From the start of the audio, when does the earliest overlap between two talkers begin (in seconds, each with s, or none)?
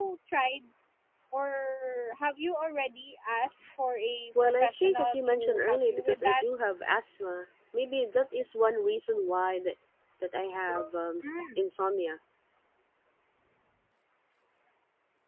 4.4 s